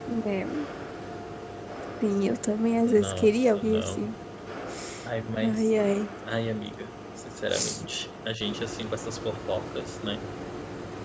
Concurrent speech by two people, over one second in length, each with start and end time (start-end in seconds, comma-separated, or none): 2.8-4.1